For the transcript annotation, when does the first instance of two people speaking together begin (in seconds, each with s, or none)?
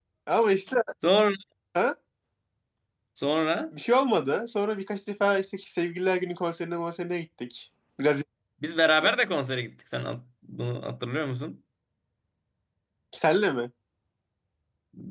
none